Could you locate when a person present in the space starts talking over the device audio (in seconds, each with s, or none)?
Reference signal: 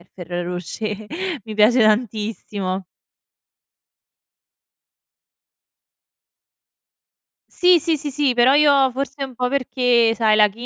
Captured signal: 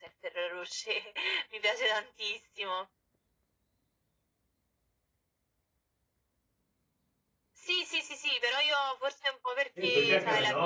9.8 s